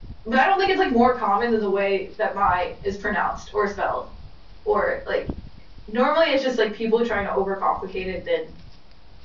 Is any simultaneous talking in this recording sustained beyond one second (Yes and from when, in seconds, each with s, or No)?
No